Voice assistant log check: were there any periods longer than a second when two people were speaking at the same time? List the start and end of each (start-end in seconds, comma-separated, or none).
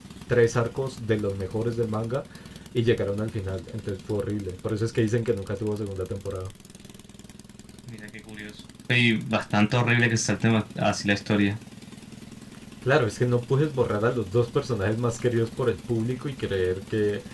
none